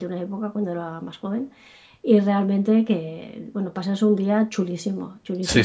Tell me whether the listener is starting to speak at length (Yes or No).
Yes